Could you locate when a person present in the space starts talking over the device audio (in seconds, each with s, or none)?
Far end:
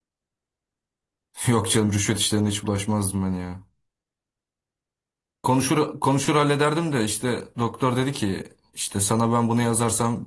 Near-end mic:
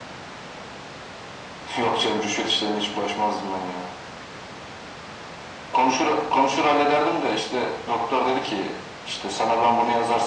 none